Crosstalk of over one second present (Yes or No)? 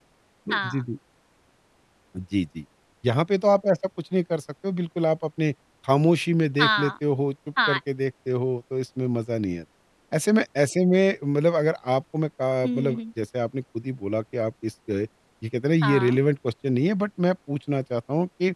No